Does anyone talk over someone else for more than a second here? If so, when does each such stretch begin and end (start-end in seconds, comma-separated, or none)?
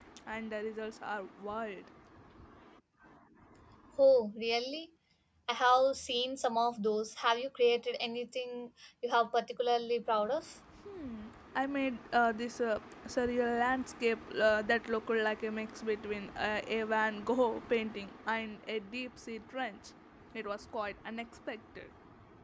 none